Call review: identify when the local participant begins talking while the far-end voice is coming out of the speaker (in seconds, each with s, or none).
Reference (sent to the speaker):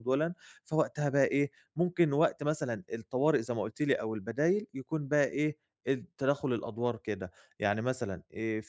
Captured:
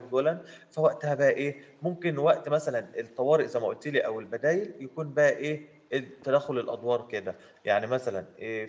none